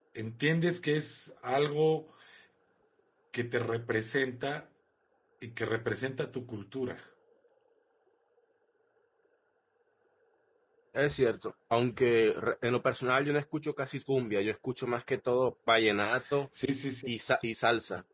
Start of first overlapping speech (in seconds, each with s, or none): none